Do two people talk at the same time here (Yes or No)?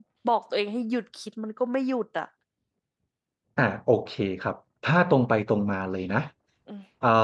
No